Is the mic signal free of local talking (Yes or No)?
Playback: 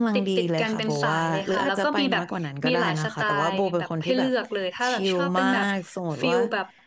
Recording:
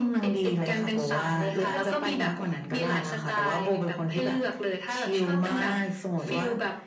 Yes